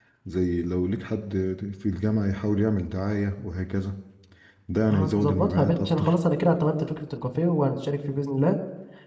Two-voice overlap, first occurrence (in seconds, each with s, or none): 4.9 s